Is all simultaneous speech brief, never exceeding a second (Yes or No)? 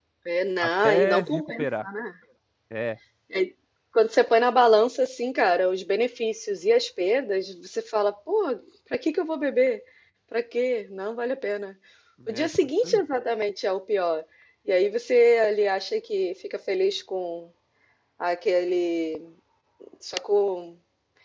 No